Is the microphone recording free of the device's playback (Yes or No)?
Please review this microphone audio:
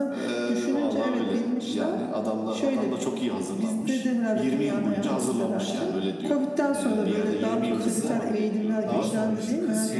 No